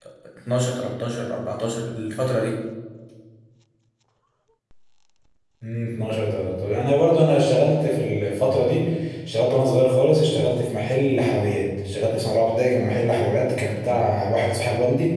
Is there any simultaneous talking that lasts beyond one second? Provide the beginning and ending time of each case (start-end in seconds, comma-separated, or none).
none